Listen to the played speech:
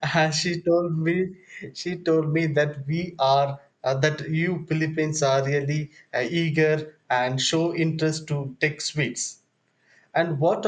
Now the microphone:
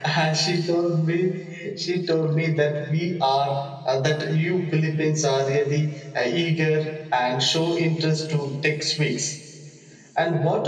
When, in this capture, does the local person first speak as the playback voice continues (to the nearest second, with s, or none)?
none